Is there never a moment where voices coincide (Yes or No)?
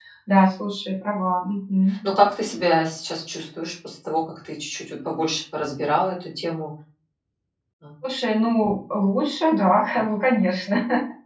Yes